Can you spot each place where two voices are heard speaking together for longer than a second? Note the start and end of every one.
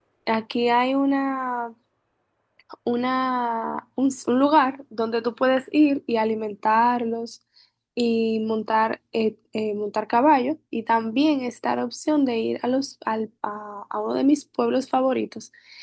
none

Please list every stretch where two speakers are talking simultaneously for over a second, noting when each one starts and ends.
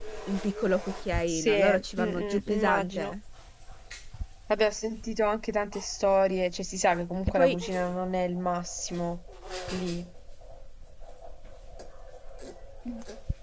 1.3-3.2

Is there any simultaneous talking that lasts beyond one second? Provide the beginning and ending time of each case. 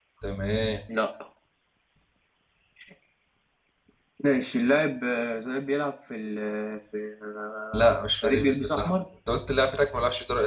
7.7-8.9

